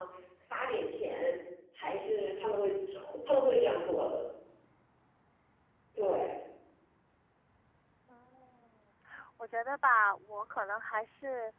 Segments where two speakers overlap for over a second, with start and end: none

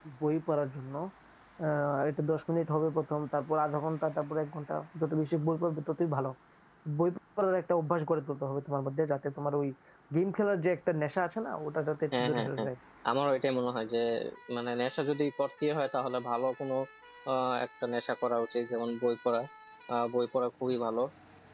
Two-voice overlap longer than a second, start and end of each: none

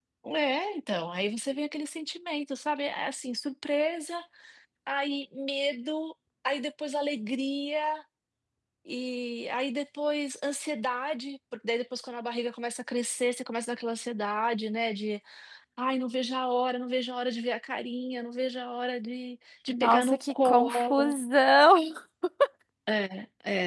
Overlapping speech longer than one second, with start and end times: 19.7-21.1

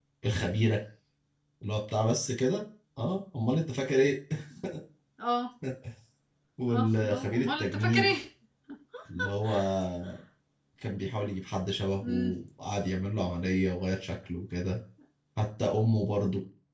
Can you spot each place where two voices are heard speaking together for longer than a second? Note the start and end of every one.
6.8-8.1

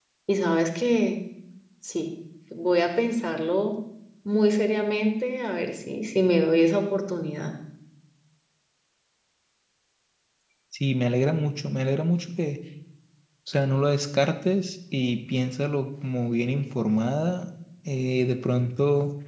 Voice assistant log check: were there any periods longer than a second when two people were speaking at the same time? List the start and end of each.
none

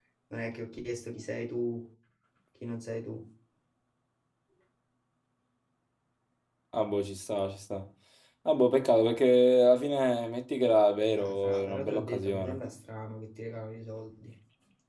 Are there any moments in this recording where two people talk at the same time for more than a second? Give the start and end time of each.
11.2-12.6

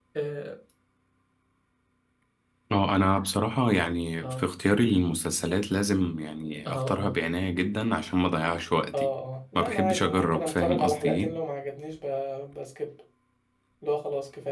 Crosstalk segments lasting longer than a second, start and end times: 9.6-11.3

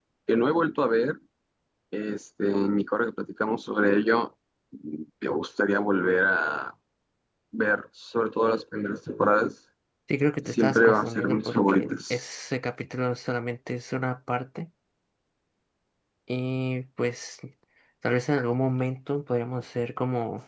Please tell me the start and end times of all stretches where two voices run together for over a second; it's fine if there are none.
10.6-12.2

